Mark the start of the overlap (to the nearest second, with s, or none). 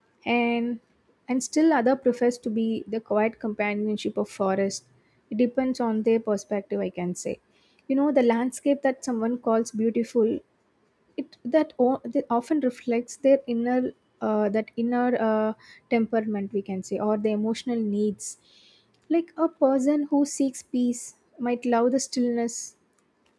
none